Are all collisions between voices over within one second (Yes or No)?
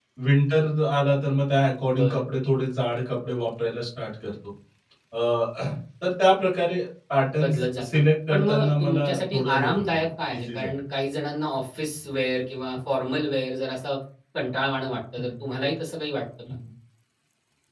No